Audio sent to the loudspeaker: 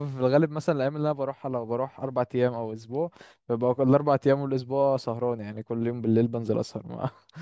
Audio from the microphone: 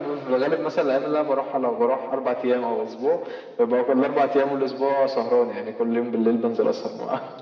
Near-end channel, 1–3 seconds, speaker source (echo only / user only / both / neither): echo only